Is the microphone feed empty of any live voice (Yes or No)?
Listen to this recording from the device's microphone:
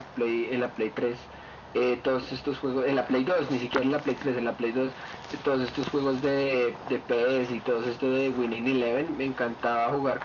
Yes